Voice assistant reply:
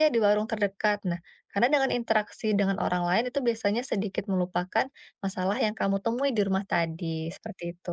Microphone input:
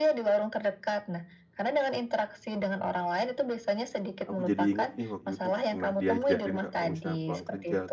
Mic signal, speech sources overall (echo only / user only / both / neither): both